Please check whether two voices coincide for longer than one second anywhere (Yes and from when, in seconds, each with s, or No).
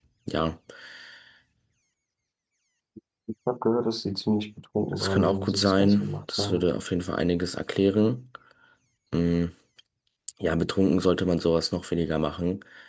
Yes, from 4.9 s